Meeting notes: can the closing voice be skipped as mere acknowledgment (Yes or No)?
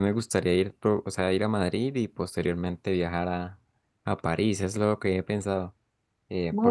Yes